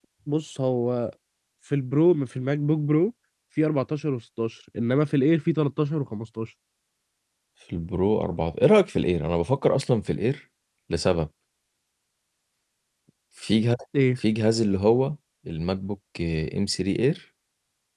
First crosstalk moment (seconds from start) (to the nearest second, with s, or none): none